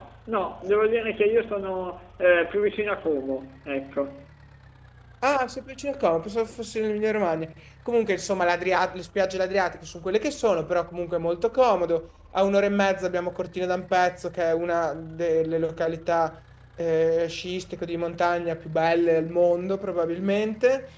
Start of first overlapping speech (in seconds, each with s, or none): none